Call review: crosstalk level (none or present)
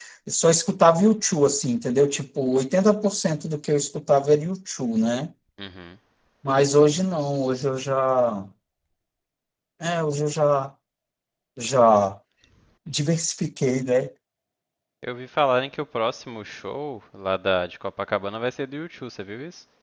none